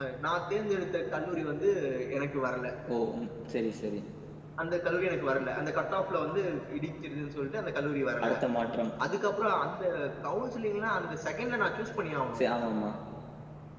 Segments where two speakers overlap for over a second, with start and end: none

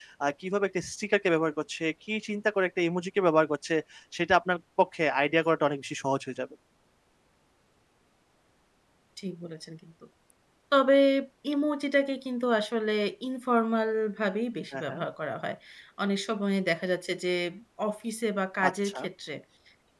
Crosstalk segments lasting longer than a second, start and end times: none

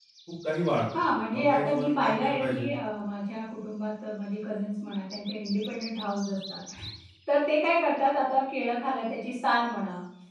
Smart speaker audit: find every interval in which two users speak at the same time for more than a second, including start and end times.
1.0-2.7

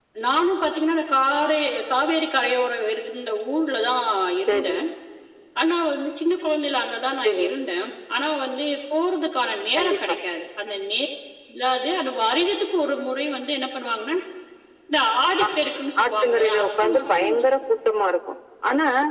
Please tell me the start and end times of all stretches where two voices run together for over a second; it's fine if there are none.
16.0-17.3

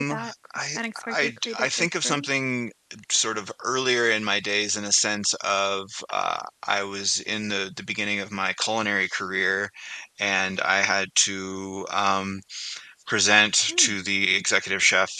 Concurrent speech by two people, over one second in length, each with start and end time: 0.8-2.2

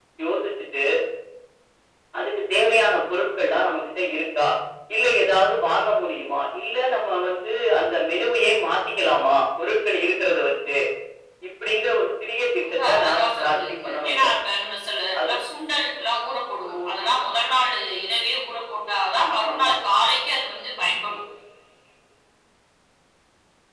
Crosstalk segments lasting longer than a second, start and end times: 12.6-14.2

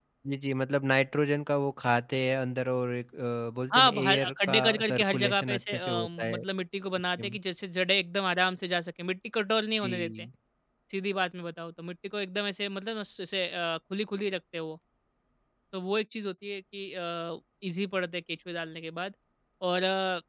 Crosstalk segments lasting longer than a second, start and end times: 3.7-6.4

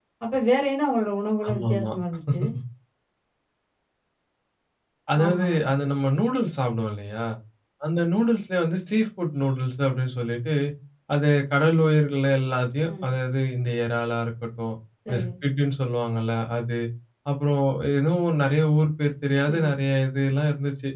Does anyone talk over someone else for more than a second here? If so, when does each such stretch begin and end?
none

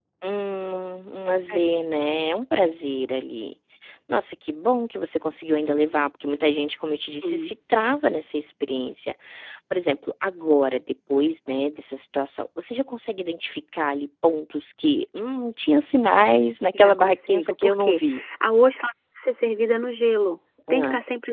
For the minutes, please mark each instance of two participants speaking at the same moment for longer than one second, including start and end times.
16.7-18.0

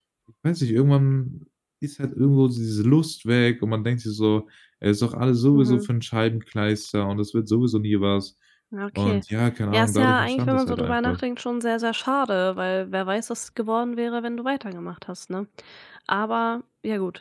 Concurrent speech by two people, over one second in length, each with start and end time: 9.7-11.2

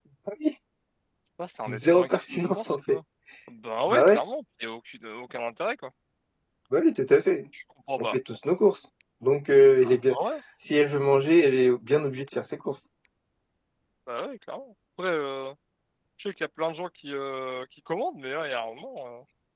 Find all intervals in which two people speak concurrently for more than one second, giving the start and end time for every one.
1.7-3.0

